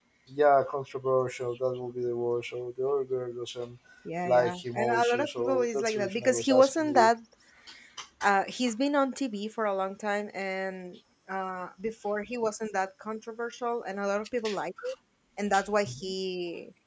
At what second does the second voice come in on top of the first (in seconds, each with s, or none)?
4.2 s